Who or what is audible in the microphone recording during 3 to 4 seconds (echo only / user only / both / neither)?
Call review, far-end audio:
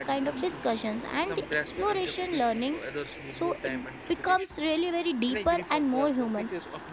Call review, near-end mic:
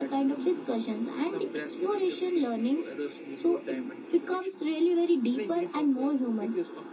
echo only